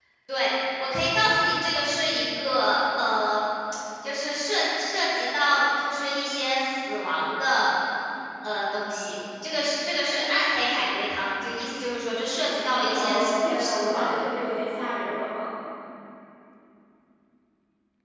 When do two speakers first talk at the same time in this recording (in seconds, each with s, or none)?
12.8 s